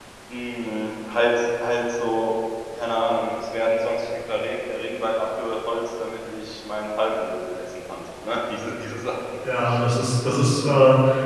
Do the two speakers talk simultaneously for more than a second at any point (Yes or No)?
No